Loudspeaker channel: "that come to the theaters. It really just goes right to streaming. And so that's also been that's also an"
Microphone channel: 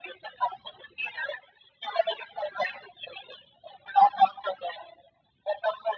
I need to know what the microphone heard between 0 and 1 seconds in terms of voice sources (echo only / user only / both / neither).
echo only